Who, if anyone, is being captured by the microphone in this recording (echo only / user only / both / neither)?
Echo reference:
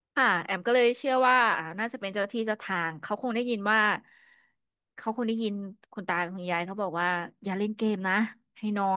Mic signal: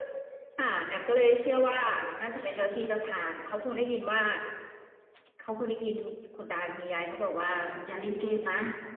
echo only